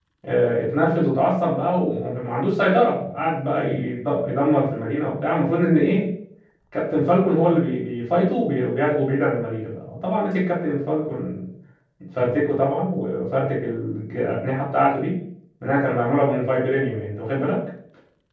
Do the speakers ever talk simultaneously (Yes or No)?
No